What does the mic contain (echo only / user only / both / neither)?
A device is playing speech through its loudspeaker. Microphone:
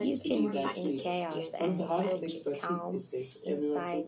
both